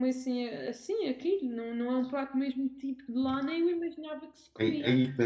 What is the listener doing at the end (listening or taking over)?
taking over